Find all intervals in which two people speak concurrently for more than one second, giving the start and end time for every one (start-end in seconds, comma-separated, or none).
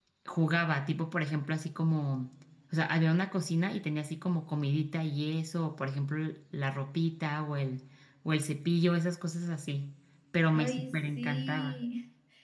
10.5-11.8